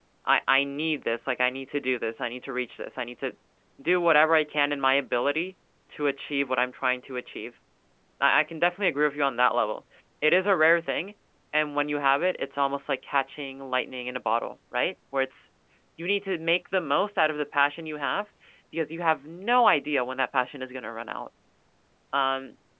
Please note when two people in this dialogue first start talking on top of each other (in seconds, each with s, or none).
none